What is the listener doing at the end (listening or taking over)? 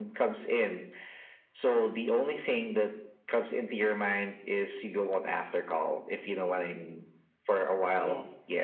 listening